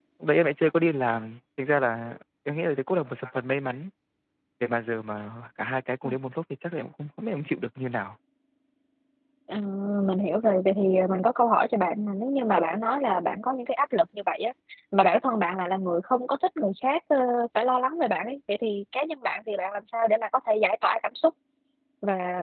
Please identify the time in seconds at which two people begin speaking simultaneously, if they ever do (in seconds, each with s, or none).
none